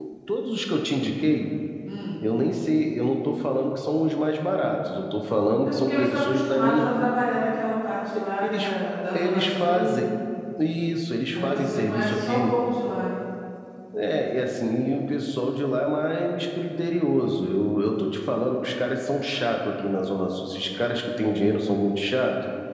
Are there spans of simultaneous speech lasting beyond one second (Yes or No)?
Yes